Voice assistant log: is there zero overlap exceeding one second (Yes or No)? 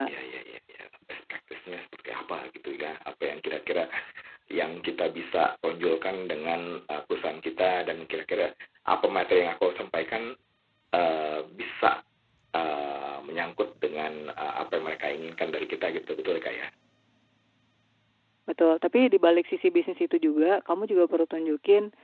Yes